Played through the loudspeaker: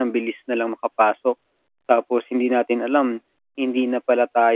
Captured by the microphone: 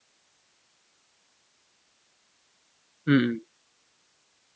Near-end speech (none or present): present